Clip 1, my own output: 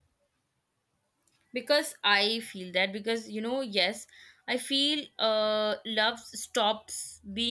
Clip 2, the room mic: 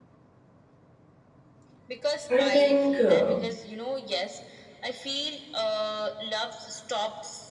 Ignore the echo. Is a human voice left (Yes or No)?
Yes